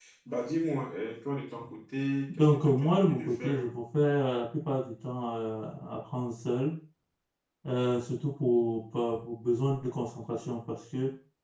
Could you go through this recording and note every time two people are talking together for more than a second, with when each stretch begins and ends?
2.4-3.6

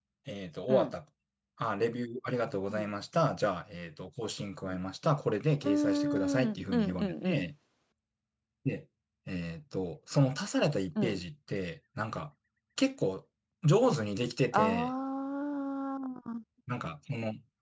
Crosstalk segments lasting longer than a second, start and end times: 5.7-7.5

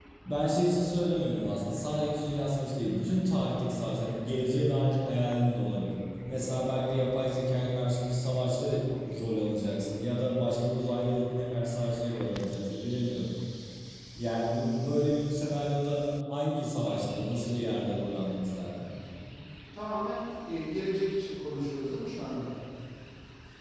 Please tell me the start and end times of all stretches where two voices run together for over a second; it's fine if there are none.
none

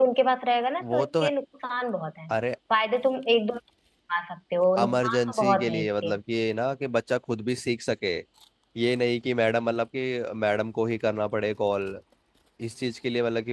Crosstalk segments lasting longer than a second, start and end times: 4.8-6.1

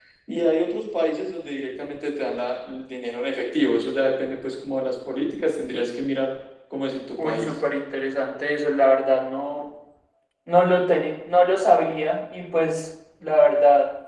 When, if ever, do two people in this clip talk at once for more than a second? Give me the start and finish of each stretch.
none

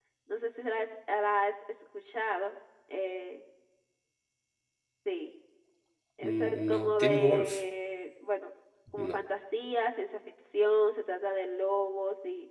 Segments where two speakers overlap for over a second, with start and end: 6.2-7.6

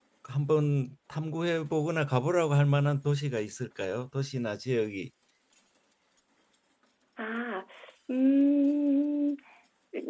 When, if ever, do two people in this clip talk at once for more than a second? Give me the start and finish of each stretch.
none

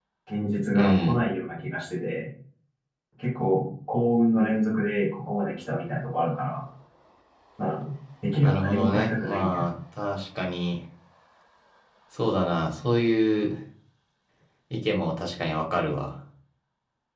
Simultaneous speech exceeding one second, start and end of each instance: 8.4-9.7

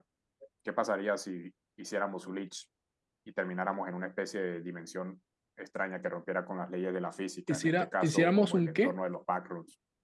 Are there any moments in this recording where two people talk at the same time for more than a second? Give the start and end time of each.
7.5-9.0

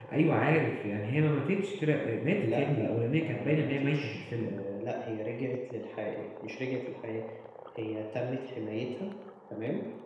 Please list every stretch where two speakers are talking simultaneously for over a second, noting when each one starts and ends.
2.4-4.6

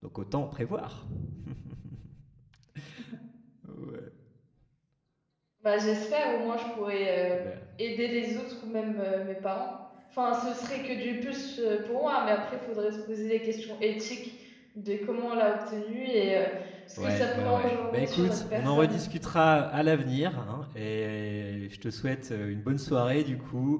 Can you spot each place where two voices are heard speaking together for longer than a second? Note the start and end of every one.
17.0-19.0

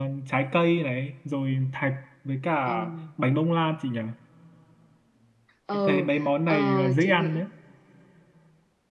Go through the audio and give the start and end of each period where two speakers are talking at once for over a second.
5.7-7.4

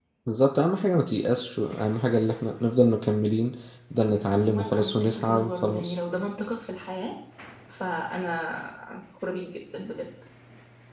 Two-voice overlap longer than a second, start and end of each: 4.3-6.0

